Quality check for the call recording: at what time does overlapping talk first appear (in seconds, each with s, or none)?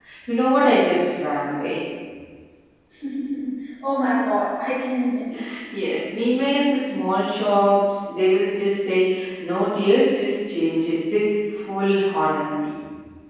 none